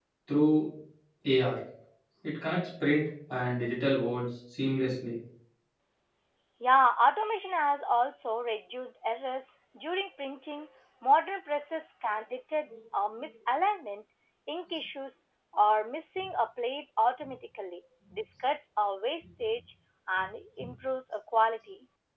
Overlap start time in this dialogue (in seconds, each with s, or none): none